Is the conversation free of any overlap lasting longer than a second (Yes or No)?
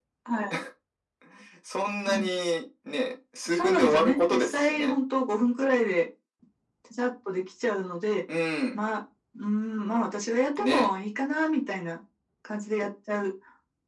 No